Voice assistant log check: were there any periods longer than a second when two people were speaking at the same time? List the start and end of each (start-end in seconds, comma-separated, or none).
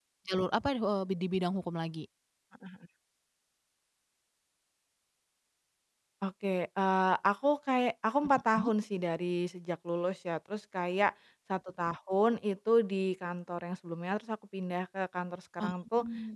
none